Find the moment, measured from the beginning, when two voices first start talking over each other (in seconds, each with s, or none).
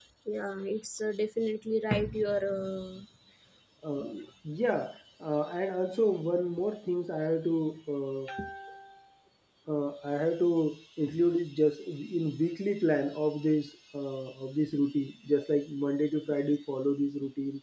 none